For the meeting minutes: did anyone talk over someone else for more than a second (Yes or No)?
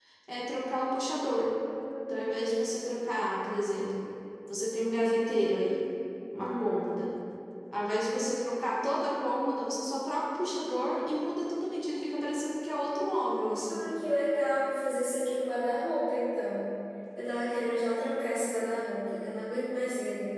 No